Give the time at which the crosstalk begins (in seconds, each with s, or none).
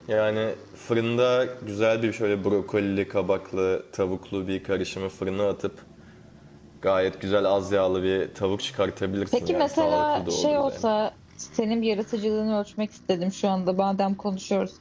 9.3 s